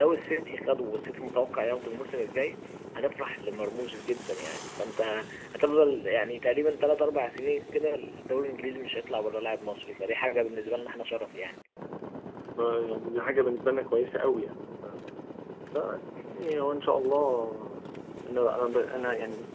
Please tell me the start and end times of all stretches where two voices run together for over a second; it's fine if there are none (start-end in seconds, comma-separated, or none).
none